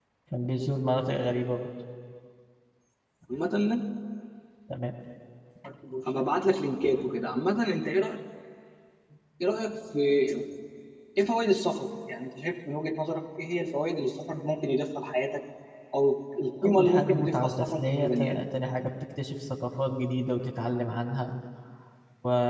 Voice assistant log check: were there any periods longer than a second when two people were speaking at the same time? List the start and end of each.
16.6-18.4

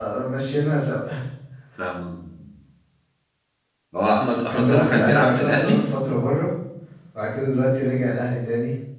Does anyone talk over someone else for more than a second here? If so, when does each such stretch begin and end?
4.5-5.9

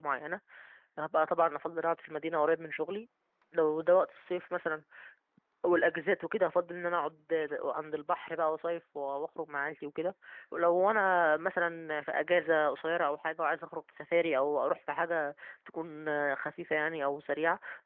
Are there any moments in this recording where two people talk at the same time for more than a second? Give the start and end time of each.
none

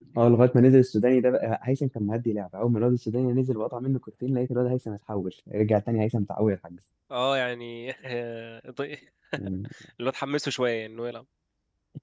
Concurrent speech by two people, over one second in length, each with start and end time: none

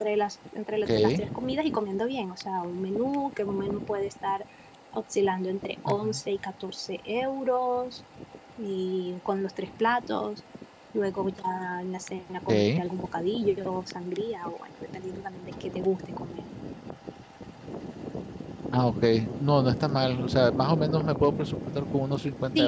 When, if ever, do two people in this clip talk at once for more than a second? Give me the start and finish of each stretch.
none

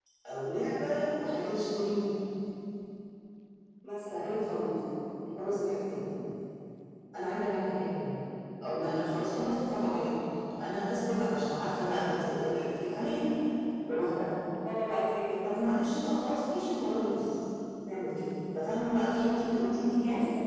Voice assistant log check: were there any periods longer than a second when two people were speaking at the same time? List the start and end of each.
none

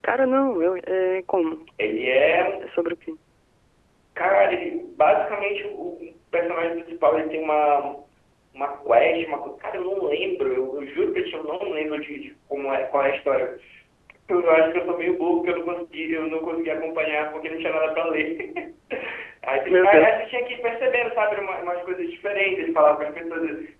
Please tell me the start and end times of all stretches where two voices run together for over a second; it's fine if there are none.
none

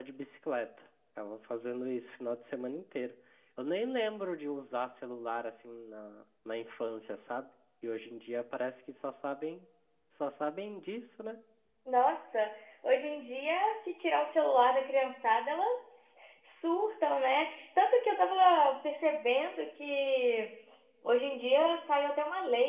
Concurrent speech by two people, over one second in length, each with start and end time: none

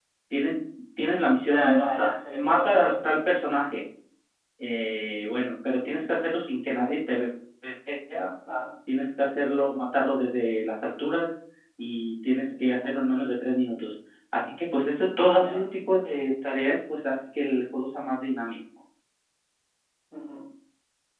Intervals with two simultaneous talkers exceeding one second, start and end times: 1.5-2.9

